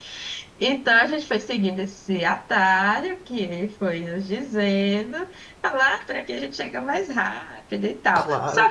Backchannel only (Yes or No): No